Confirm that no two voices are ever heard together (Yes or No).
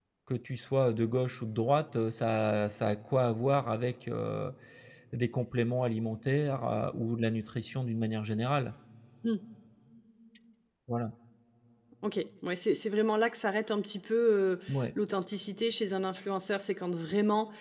Yes